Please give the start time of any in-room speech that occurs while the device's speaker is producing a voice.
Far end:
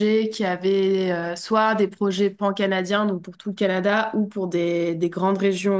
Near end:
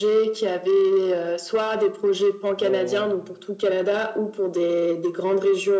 2.6 s

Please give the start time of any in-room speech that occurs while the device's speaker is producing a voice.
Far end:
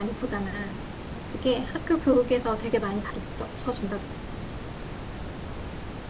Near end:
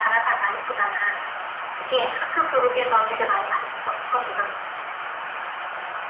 none

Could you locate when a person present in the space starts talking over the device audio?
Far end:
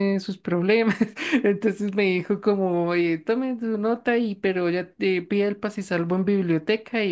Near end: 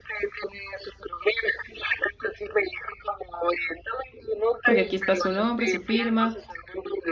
4.6 s

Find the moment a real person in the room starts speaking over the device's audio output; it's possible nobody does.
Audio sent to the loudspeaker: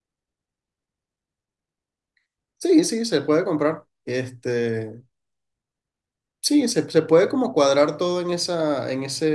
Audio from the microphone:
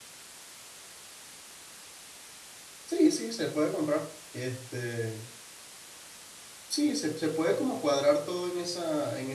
none

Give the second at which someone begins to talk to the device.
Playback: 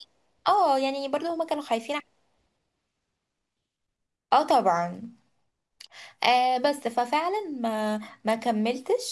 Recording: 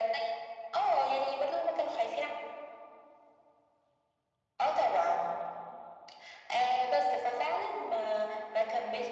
none

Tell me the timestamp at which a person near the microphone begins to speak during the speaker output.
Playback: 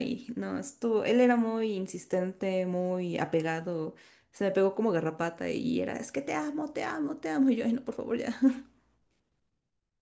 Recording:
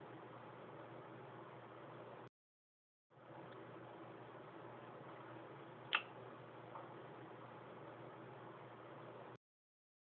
none

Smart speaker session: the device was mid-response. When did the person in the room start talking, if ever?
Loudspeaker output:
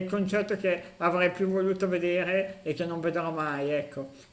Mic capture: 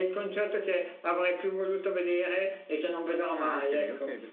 3.3 s

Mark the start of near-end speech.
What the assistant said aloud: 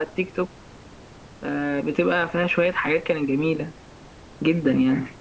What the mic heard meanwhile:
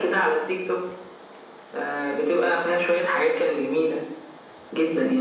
none

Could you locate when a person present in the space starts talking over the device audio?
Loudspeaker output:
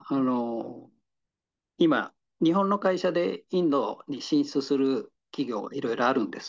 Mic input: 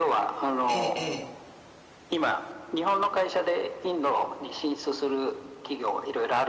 0.7 s

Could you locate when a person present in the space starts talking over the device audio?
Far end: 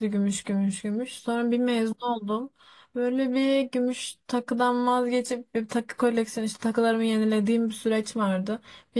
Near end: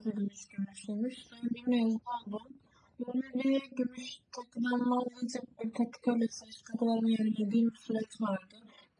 none

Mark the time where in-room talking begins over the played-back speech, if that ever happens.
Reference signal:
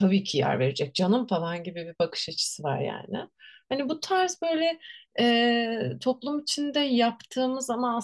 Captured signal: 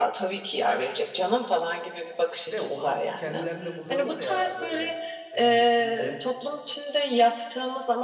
2.5 s

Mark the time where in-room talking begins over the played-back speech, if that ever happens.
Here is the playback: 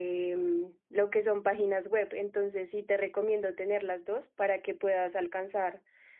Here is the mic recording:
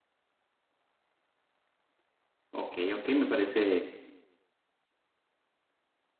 2.5 s

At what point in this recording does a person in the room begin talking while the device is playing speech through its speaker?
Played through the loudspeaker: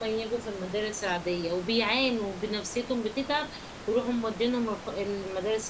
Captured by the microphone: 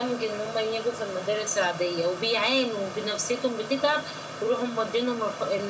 none

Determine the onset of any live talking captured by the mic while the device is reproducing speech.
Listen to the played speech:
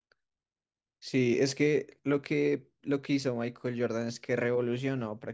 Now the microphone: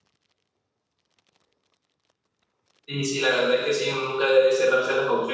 2.8 s

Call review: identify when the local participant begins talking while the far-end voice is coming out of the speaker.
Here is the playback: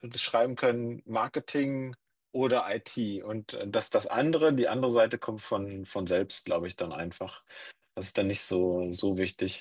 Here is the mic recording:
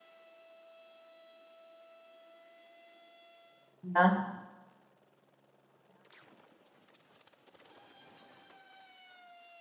3.8 s

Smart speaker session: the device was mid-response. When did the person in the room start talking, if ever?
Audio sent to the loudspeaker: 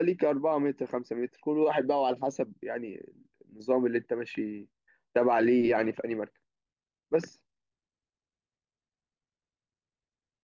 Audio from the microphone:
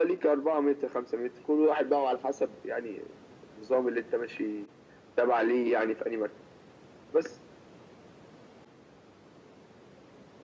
none

